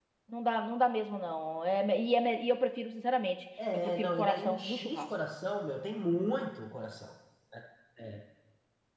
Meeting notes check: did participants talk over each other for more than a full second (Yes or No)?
Yes